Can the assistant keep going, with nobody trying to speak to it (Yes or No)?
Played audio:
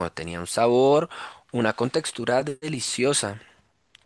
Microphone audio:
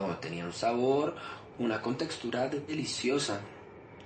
Yes